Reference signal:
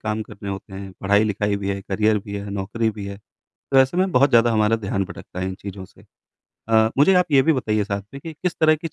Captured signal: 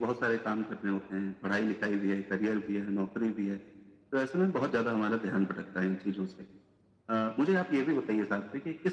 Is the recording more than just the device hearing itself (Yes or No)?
No